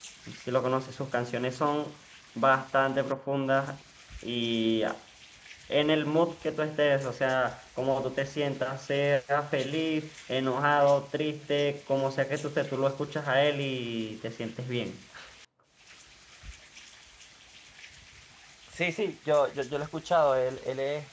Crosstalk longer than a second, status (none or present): none